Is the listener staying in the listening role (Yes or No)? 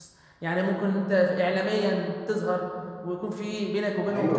No